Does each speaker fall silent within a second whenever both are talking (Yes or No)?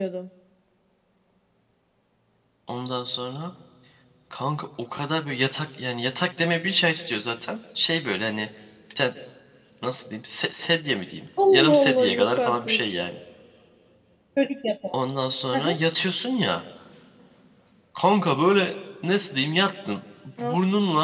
No